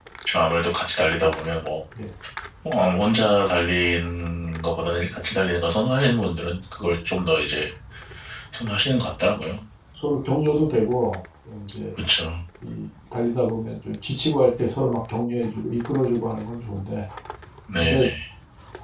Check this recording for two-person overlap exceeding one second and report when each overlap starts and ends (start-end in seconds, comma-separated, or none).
none